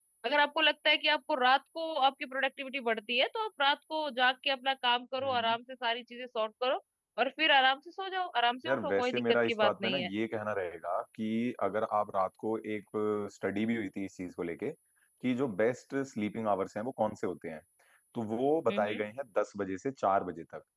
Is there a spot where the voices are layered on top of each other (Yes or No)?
Yes